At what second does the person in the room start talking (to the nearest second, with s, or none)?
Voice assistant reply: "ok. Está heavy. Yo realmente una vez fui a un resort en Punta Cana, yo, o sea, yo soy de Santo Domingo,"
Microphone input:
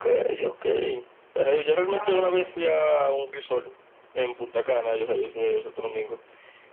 2 s